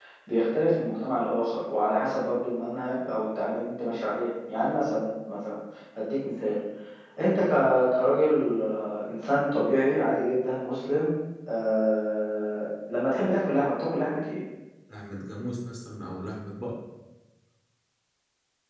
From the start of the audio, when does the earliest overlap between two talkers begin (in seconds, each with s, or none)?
none